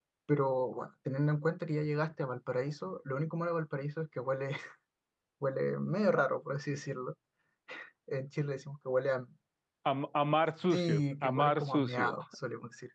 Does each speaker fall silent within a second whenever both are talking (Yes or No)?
No